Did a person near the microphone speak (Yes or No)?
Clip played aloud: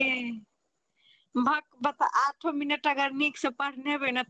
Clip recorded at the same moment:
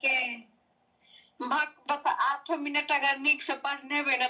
No